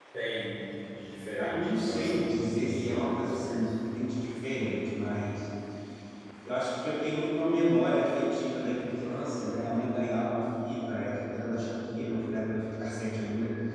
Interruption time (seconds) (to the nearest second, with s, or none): 1 s